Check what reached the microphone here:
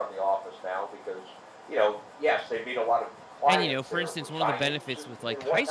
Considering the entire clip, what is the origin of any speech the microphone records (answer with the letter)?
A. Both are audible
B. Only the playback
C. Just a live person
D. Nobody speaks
A